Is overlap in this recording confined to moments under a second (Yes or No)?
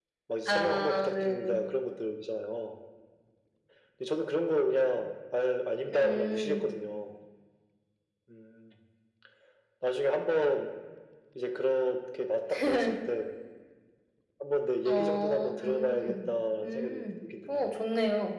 No